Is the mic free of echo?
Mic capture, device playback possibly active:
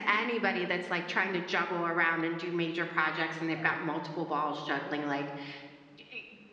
No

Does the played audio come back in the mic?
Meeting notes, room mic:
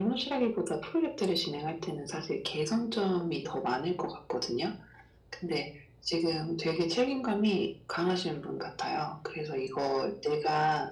Yes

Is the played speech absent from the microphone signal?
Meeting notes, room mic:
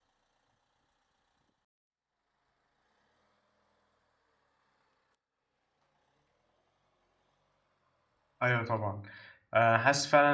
Yes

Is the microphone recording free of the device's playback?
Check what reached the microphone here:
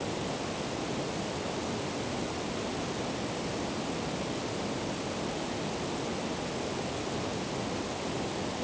Yes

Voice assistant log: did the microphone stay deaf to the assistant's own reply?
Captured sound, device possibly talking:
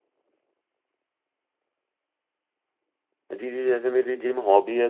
Yes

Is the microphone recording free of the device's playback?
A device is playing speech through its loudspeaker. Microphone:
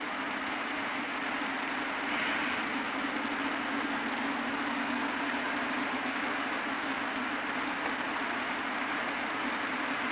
Yes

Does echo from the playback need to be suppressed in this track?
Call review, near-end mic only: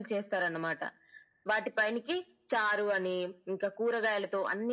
Yes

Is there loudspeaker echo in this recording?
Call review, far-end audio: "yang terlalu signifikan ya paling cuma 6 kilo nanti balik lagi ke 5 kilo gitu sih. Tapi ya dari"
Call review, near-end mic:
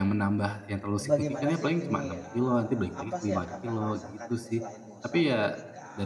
Yes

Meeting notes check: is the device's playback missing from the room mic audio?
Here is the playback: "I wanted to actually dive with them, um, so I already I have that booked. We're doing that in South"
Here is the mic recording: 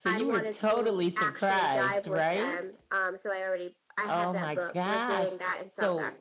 No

